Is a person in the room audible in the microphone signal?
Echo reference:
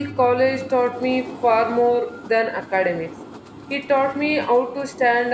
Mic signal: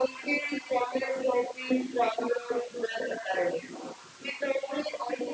No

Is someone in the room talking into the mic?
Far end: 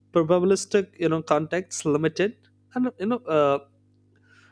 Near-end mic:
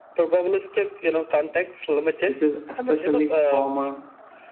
Yes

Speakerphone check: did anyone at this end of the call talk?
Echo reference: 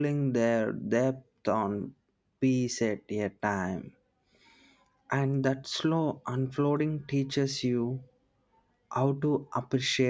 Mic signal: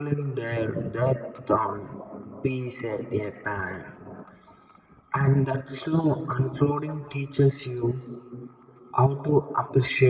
No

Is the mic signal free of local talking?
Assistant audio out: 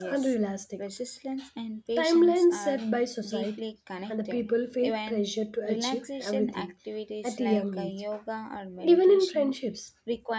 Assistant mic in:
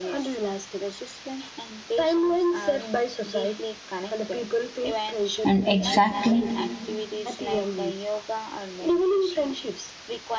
No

